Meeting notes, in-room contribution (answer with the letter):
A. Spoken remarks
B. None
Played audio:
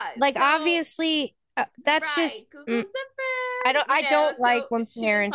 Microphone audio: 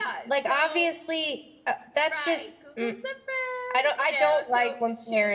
B